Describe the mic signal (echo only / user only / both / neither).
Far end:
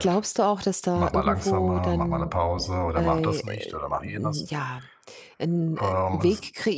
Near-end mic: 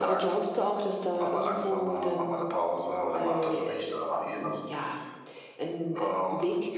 echo only